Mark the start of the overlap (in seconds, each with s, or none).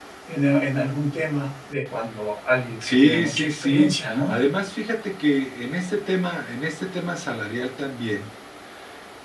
2.8 s